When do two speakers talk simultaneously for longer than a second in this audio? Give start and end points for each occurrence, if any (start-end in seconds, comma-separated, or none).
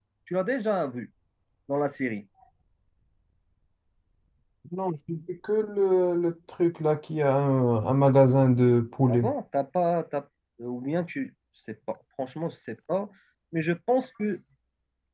none